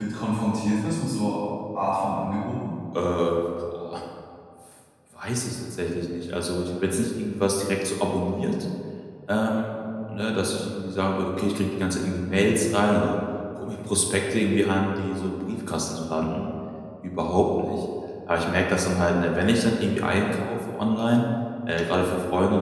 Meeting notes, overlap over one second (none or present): none